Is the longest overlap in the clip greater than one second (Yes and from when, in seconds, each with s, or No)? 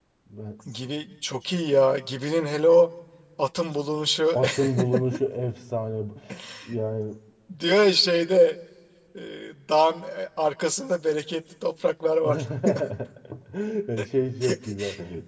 No